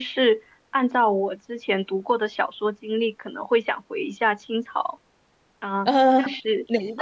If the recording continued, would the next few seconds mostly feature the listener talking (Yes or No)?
Yes